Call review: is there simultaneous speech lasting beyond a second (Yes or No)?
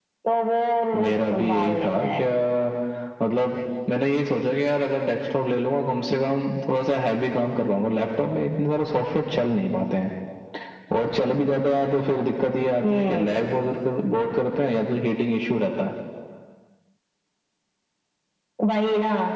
Yes